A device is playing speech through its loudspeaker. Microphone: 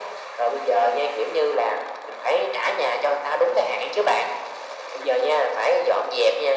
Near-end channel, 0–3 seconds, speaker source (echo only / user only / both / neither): echo only